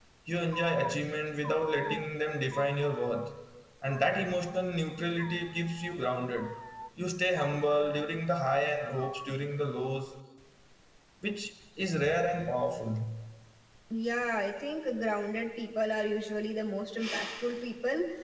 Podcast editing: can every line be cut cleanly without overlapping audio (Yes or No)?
Yes